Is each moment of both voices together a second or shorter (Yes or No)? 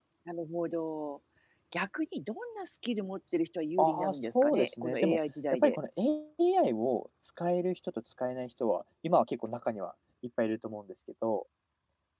No